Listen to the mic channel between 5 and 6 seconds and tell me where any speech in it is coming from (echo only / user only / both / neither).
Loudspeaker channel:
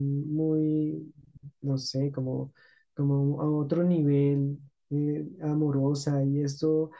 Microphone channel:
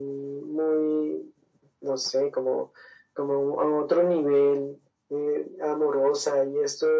echo only